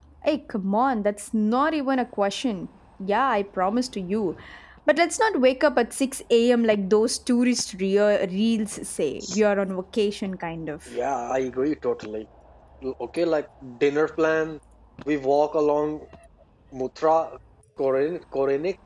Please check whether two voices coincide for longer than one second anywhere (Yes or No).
No